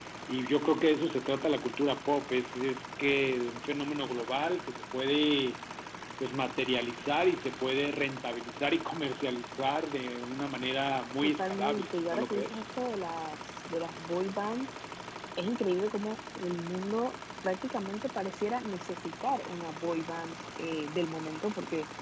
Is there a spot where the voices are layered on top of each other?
Yes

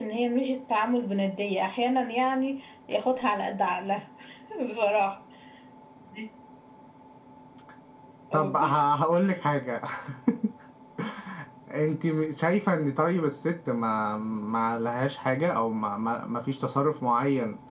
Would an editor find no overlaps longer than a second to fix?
Yes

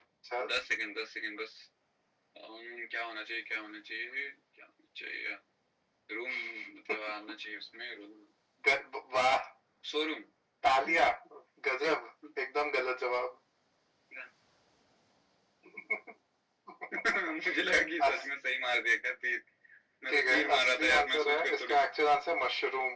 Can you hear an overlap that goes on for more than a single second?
Yes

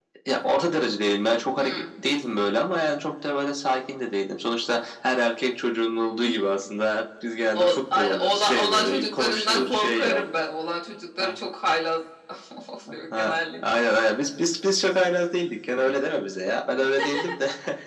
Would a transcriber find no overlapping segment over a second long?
No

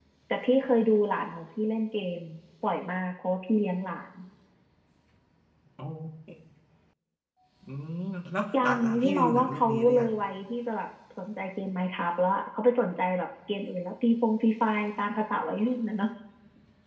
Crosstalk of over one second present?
Yes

